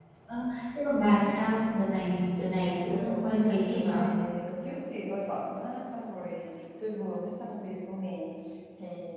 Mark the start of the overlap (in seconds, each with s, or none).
2.7 s